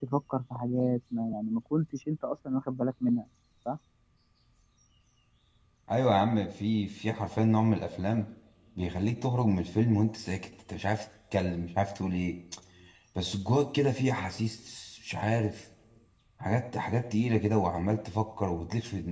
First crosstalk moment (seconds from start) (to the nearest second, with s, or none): none